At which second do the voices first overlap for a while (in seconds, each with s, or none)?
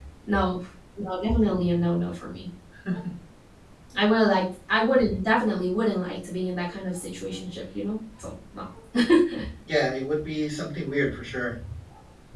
none